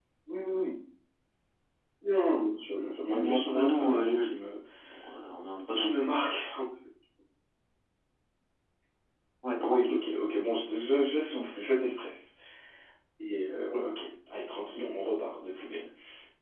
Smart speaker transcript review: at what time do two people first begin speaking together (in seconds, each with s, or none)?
3.1 s